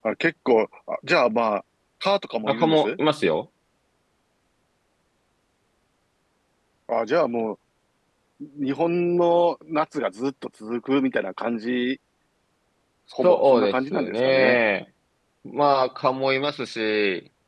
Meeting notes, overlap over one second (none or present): present